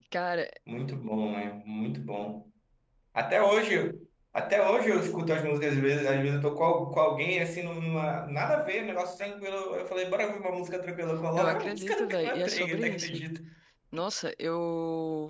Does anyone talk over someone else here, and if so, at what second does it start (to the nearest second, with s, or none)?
11 s